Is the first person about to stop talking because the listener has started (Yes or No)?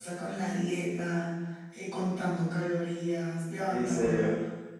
No